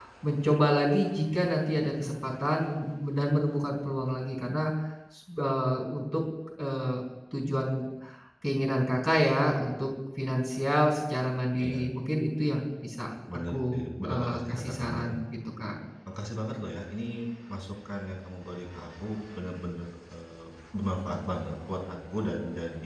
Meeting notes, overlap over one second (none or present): present